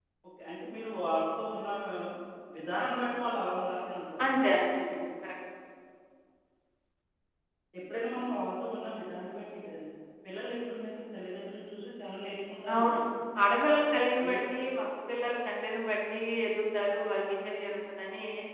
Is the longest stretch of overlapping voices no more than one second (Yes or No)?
Yes